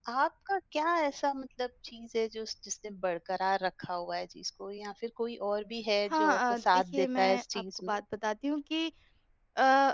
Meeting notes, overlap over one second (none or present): present